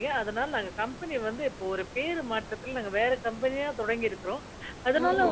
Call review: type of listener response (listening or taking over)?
listening